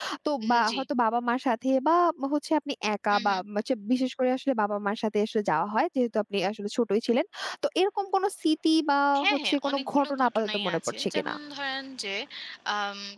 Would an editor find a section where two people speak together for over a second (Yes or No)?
Yes